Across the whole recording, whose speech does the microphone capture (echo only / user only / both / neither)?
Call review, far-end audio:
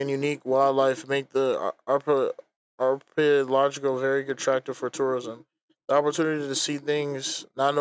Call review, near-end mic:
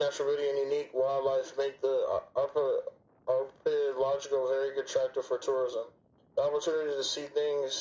echo only